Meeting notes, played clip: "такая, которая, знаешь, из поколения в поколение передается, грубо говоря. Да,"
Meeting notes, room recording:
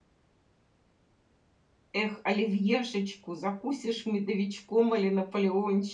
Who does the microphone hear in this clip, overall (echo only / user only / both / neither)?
user only